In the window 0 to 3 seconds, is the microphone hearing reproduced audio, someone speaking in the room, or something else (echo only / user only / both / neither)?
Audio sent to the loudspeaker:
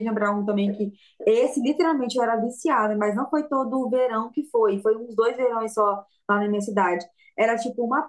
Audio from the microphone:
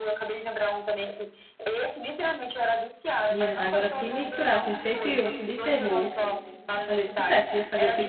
echo only